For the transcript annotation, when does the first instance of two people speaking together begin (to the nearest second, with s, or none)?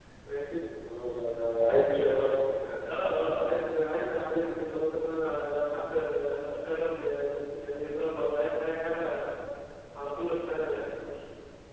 none